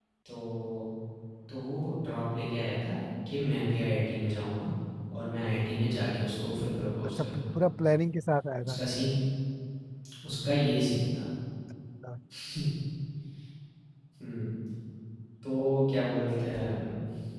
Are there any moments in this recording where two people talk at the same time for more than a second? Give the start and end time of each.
none

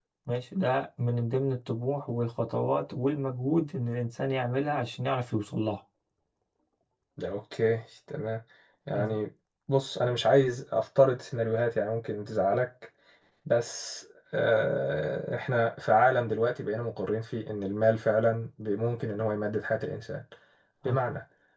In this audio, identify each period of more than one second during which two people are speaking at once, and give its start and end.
none

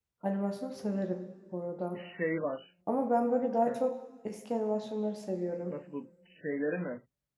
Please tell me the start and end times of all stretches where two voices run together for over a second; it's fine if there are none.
none

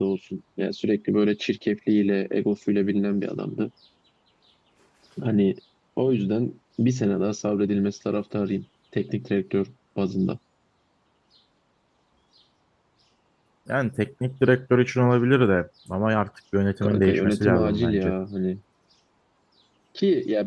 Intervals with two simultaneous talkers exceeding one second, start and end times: 16.8-18.1

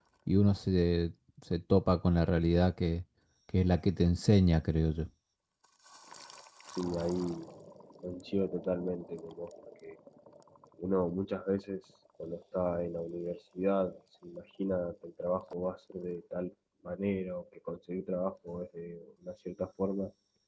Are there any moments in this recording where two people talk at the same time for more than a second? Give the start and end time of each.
none

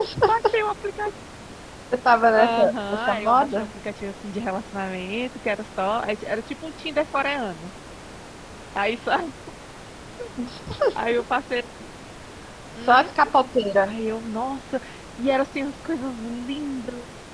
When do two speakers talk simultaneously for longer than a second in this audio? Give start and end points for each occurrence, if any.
2.4-3.7

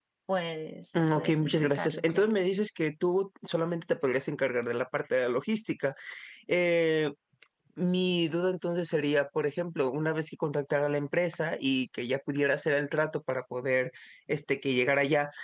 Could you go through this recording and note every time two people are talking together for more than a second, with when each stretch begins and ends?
0.9-2.3

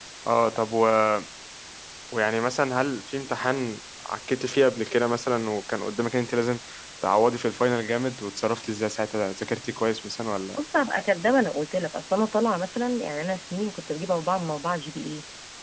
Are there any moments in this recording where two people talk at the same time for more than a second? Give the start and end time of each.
none

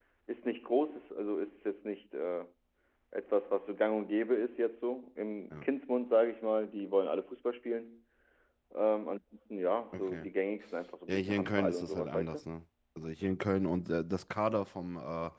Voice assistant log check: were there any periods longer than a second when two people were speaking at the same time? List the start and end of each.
11.1-12.4

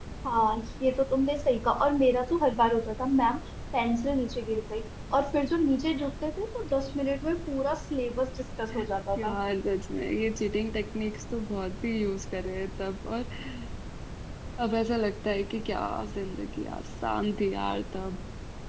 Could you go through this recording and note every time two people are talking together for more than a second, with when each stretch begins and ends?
none

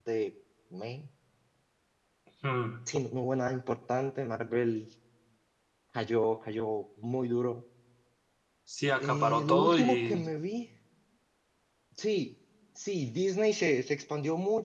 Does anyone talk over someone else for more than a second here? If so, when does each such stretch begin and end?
9.0-10.2

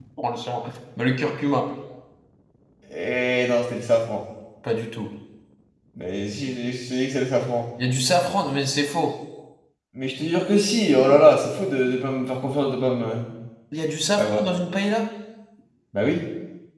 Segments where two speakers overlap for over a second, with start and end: none

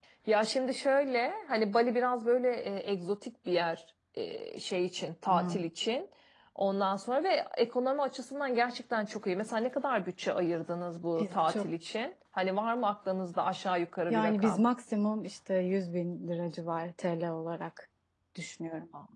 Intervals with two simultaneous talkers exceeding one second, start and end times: none

